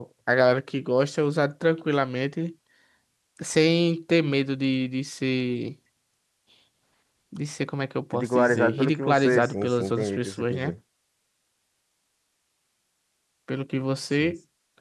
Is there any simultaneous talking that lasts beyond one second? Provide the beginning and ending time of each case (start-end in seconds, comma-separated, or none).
8.1-10.7